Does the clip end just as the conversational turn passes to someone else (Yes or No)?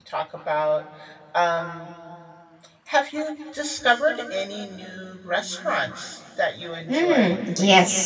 Yes